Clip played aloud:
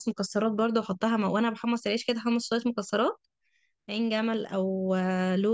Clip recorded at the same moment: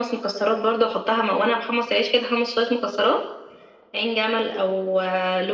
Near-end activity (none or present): none